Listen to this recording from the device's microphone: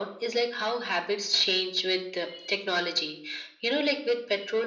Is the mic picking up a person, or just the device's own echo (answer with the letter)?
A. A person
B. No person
B